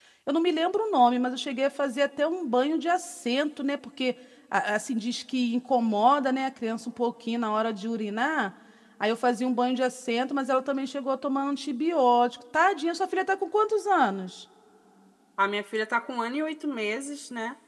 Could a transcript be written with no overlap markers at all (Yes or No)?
Yes